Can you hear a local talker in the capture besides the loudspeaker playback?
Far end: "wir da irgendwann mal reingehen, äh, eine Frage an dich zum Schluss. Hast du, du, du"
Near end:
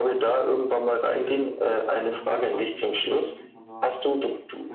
Yes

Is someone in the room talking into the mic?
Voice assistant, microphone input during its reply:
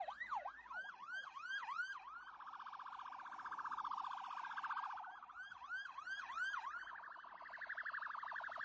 No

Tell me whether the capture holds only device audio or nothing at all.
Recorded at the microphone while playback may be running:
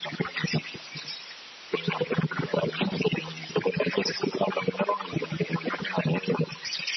Yes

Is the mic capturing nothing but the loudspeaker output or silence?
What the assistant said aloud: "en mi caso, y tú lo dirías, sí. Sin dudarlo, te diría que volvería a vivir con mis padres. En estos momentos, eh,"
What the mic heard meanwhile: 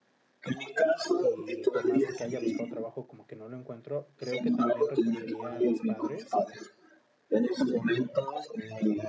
No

